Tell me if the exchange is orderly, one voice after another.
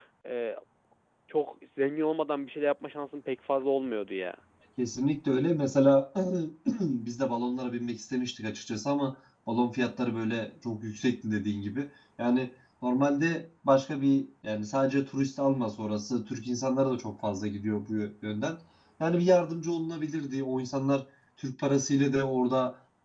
Yes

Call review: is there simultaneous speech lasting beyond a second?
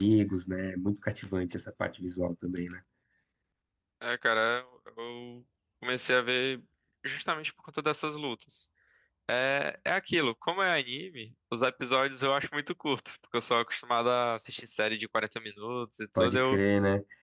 No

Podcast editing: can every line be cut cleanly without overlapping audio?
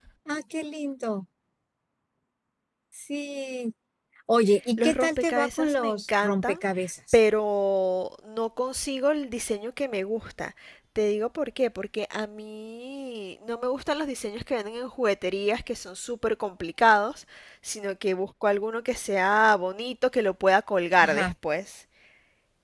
No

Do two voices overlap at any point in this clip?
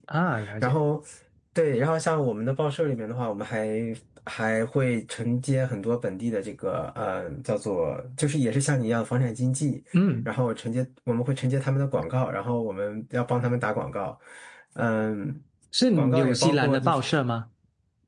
Yes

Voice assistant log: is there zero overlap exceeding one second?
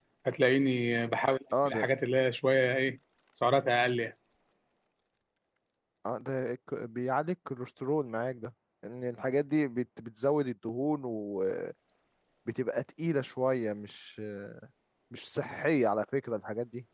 Yes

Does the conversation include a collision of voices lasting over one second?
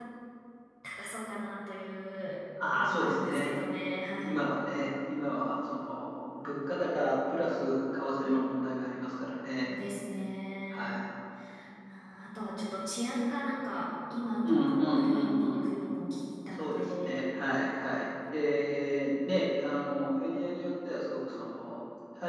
Yes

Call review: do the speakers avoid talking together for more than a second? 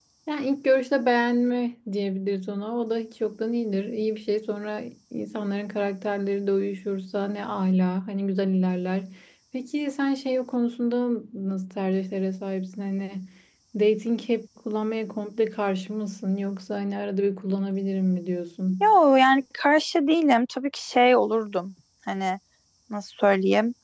Yes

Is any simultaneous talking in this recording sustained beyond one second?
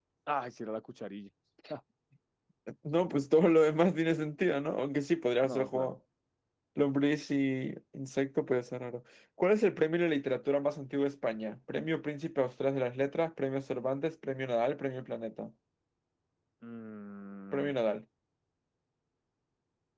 No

